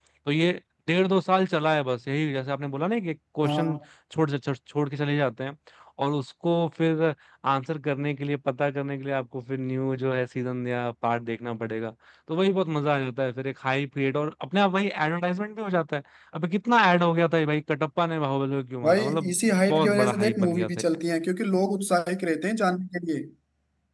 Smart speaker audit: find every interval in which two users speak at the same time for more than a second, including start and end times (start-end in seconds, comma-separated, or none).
18.9-20.8